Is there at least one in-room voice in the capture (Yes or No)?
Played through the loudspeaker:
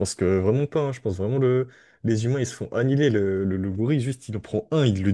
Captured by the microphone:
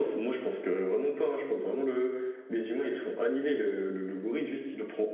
No